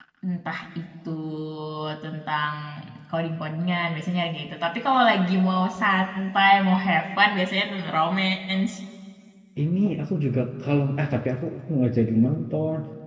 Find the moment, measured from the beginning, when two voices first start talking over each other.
none

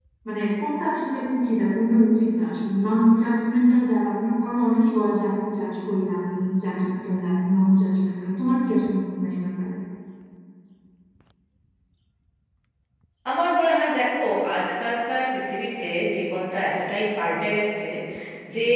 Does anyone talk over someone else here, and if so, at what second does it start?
none

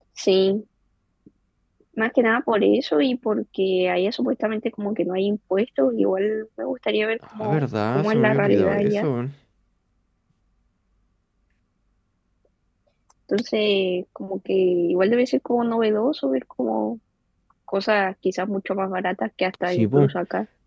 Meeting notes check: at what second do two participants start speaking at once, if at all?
7.4 s

